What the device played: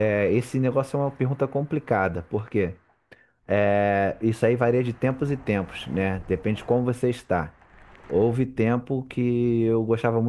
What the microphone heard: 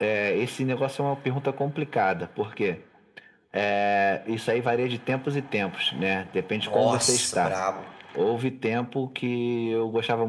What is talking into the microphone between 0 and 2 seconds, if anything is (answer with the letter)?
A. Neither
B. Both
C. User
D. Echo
D